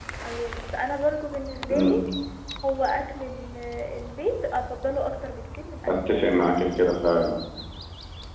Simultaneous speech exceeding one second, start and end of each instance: none

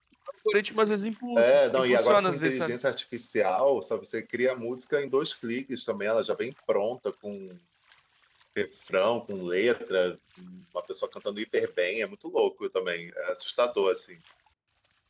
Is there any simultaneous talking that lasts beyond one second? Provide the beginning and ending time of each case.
1.4-2.8

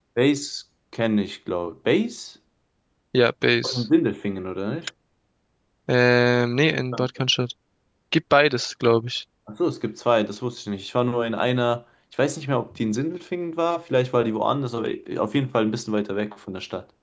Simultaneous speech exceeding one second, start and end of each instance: none

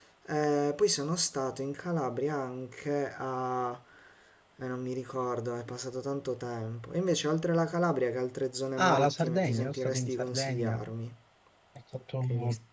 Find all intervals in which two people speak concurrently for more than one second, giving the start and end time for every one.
8.8-10.8

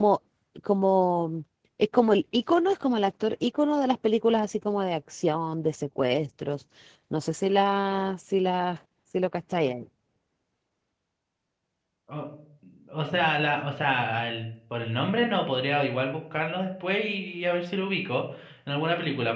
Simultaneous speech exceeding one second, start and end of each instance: none

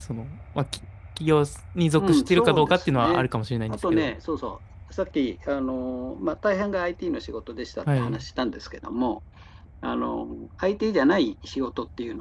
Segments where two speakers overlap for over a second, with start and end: 2.0-3.2

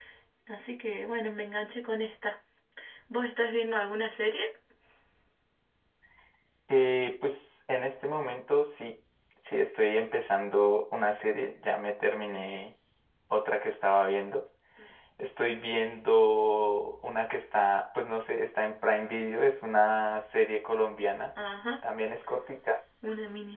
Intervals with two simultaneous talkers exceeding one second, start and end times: none

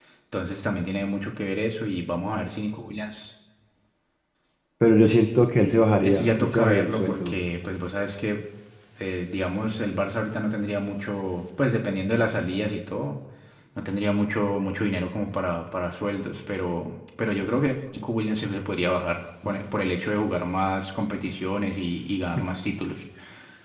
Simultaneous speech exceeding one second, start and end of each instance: 6.0-7.4

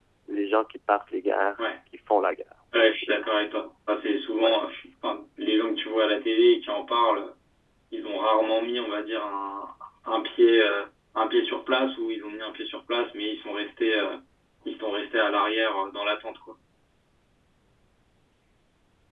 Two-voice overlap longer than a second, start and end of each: none

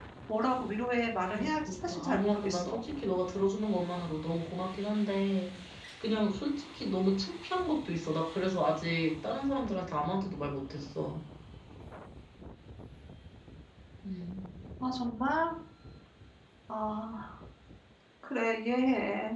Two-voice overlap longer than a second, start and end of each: 1.3-2.8

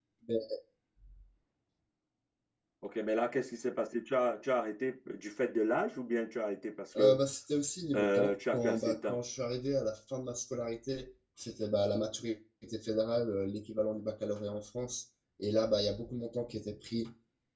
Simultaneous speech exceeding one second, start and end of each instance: 7.9-9.2

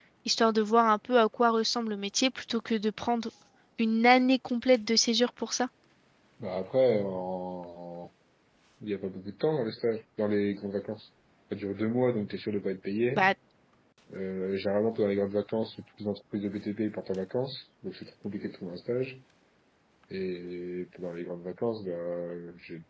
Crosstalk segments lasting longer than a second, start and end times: none

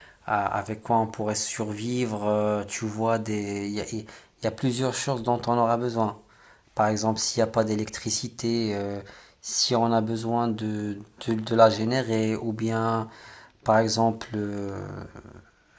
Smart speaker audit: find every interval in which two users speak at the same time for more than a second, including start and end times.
none

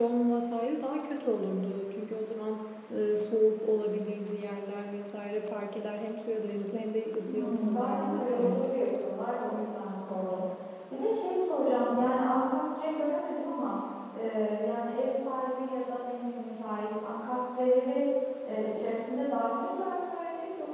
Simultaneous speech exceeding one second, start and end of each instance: 7.3-8.7

